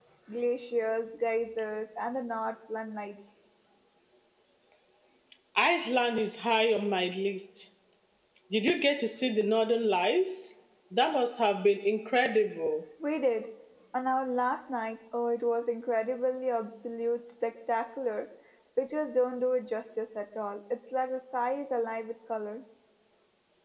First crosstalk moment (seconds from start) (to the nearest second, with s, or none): none